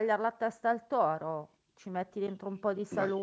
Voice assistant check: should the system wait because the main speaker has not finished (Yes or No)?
Yes